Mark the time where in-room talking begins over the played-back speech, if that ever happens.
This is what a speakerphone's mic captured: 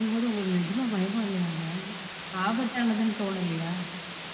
none

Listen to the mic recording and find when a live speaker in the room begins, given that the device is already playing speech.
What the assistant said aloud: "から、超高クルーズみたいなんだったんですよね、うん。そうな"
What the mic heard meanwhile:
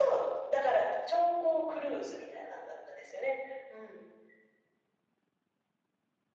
none

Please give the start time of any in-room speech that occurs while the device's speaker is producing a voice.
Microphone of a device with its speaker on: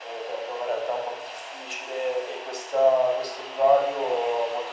none

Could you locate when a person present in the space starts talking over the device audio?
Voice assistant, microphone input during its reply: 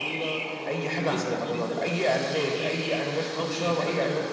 none

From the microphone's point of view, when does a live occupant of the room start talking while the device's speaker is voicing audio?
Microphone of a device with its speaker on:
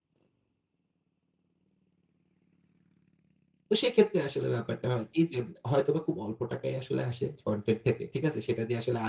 4 s

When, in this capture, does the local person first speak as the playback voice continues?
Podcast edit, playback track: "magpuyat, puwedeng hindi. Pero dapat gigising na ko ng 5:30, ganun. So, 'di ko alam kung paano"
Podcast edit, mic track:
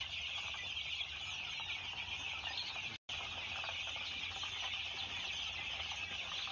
none

